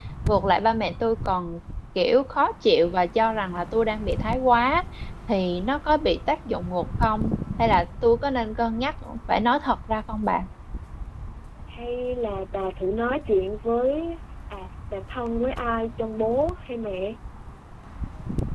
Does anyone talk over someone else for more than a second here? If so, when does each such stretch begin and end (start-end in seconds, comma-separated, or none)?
none